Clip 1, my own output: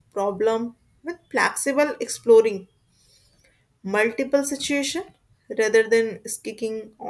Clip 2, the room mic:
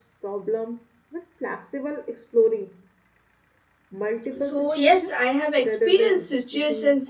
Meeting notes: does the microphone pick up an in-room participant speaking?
Yes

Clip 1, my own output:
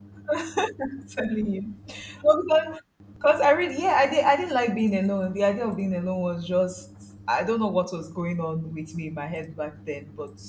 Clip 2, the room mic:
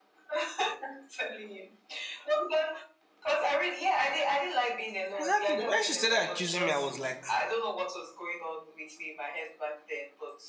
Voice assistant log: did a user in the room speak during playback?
Yes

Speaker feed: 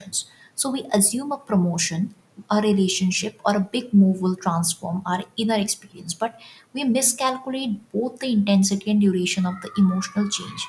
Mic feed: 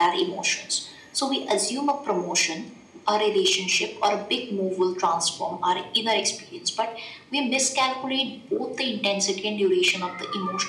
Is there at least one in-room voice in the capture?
No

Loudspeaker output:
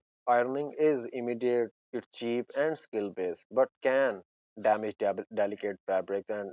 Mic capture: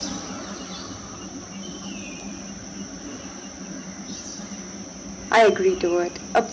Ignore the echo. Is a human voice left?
Yes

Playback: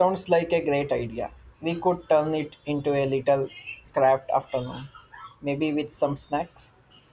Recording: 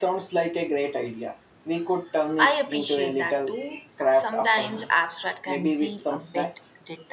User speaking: Yes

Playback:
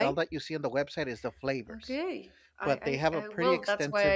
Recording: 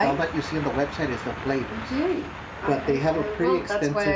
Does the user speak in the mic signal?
No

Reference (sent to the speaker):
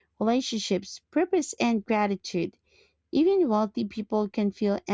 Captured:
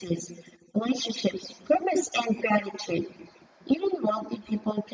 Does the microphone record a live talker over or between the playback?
No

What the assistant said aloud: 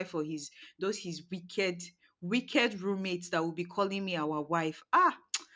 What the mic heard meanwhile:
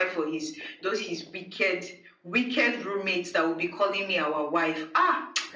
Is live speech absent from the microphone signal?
Yes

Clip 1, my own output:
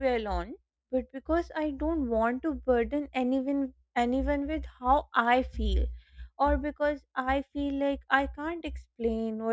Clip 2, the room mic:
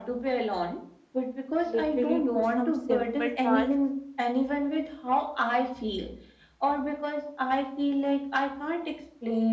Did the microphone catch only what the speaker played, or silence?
No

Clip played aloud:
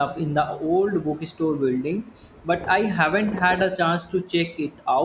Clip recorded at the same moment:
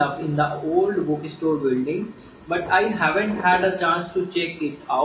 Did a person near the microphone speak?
No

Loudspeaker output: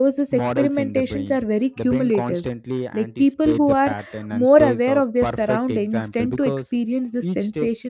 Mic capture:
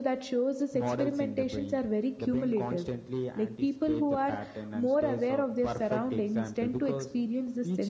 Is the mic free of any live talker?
Yes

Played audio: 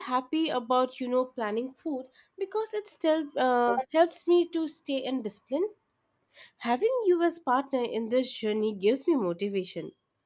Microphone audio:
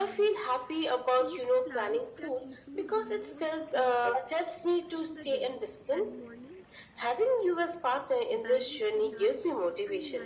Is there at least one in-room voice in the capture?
Yes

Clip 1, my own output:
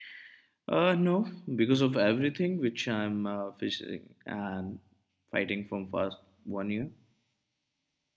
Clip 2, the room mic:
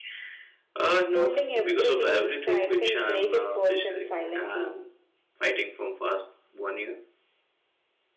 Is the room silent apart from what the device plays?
No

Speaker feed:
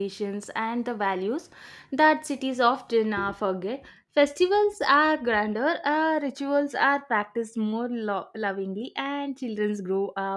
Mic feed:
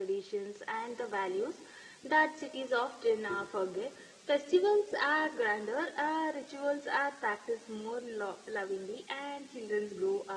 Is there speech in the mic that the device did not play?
No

